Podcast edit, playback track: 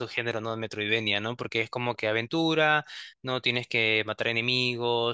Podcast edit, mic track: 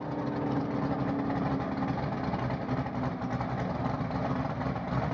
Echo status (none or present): none